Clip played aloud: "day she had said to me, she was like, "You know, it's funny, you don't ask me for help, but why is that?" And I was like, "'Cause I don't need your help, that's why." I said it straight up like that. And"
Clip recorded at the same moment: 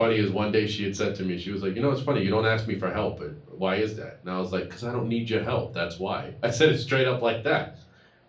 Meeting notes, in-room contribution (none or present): none